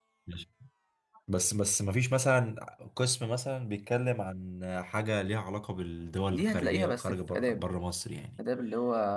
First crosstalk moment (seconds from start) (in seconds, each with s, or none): 6.3 s